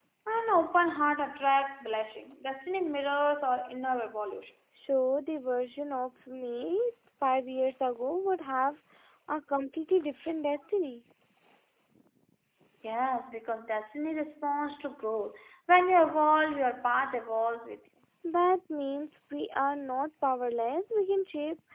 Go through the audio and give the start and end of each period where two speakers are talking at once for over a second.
none

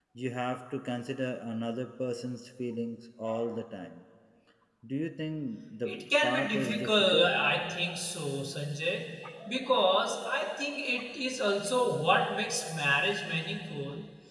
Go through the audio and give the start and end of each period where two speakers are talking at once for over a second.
5.8-7.3

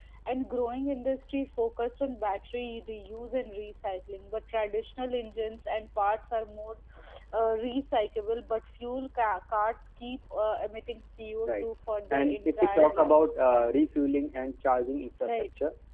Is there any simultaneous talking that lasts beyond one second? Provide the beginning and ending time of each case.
12.1-13.7

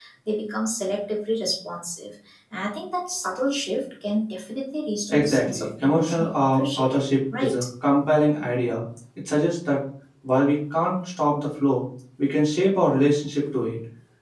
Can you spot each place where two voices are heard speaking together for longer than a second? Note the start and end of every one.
5.1-6.9

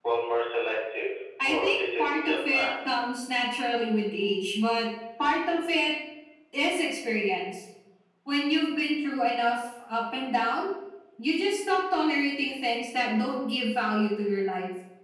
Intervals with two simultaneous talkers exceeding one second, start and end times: 1.4-3.0

